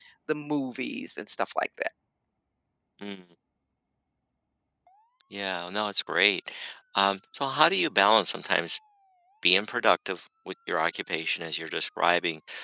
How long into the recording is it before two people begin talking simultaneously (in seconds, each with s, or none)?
none